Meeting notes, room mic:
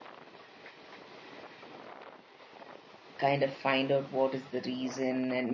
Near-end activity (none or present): present